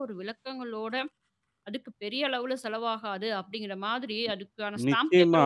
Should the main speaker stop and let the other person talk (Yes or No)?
Yes